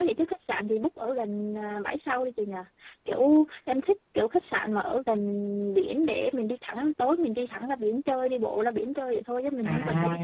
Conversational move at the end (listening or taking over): taking over